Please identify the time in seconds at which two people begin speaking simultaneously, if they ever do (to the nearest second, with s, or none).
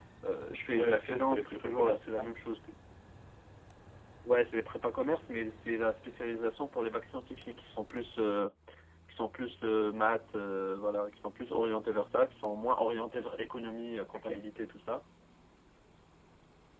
1 s